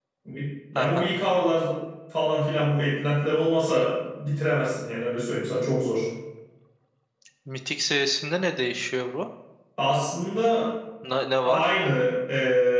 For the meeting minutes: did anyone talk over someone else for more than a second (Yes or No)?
No